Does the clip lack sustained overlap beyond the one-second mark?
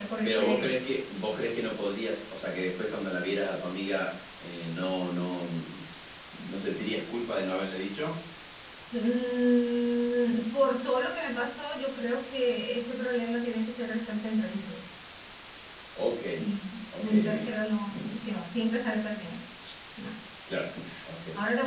Yes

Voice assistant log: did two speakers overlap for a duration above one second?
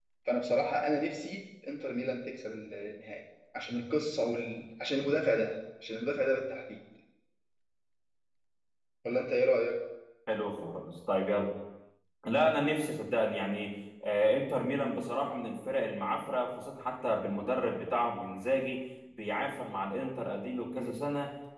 No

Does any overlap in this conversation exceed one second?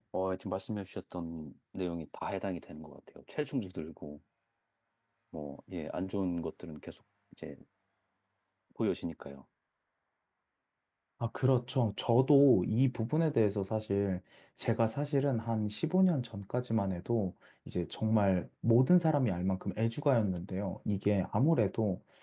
No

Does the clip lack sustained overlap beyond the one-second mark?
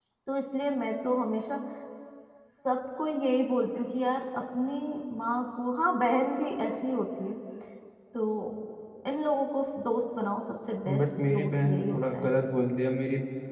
No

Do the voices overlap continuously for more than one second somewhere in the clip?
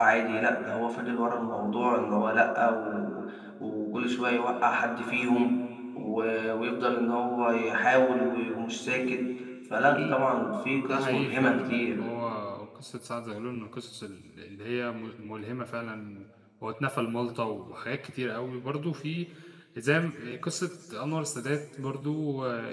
Yes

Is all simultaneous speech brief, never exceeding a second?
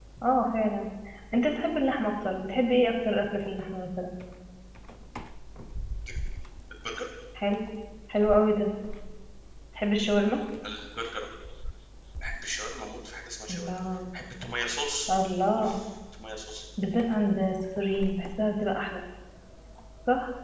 Yes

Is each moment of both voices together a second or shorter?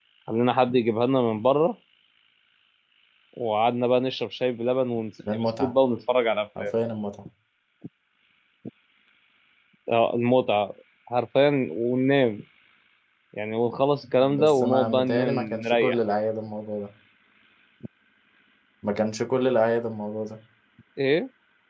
No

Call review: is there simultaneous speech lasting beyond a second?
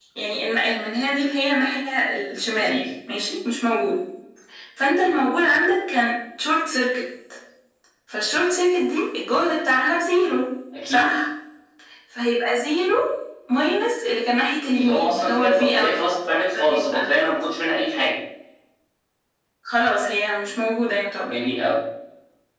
Yes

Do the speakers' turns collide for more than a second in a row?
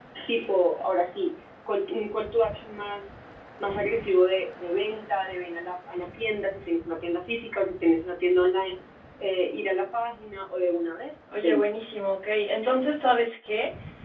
No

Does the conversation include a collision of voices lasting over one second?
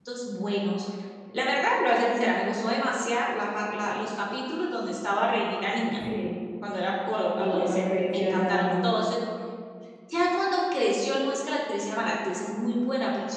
Yes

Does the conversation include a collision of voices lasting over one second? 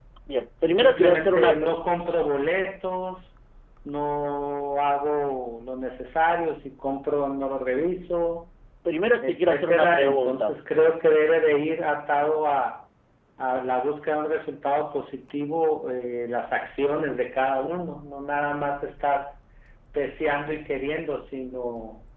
Yes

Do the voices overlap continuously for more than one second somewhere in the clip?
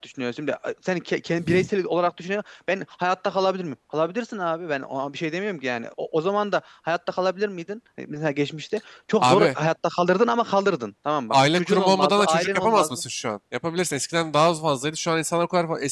Yes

